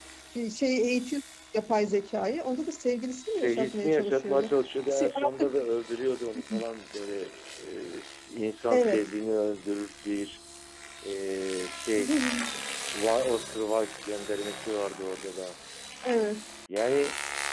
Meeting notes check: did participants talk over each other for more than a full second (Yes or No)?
Yes